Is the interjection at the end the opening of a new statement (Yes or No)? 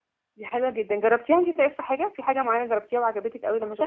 Yes